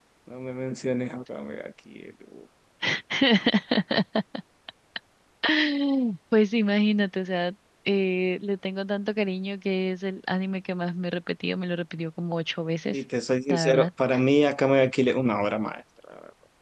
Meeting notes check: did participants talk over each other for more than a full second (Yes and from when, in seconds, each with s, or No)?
No